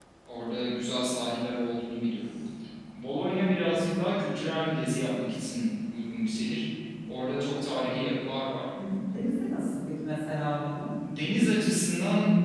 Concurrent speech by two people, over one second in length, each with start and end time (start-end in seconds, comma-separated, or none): none